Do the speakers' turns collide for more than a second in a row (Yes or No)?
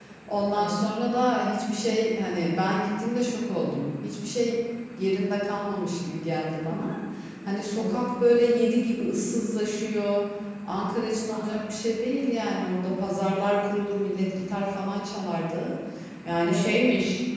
No